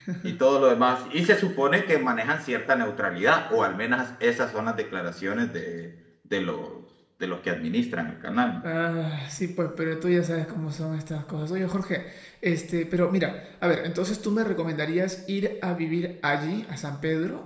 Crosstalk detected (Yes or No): No